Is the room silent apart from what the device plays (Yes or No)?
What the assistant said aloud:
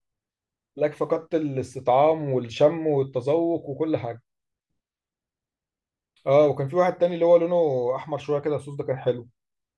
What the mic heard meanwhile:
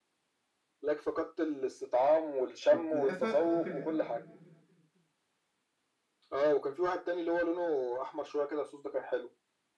No